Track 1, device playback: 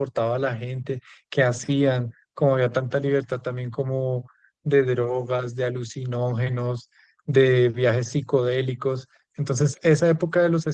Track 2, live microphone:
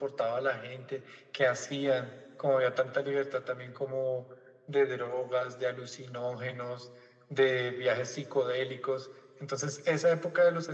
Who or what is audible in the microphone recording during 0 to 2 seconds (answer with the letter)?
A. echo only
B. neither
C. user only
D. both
A